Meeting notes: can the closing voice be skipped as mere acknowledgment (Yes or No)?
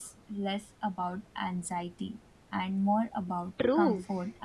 No